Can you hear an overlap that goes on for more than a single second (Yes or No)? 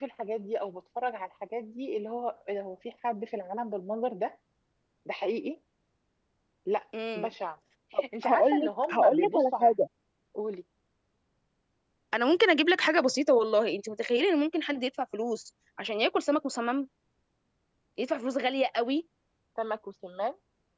Yes